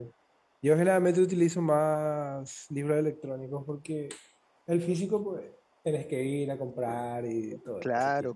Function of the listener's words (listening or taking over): taking over